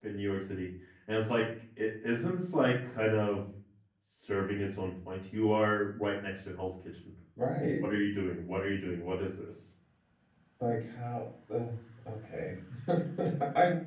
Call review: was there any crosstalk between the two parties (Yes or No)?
No